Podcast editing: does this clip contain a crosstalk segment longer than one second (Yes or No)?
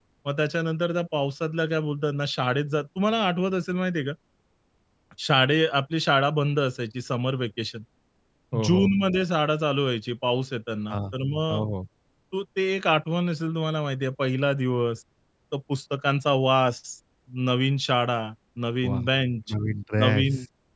No